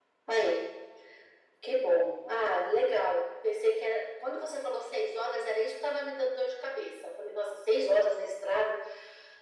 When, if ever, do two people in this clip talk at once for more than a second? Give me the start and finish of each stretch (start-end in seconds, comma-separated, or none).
none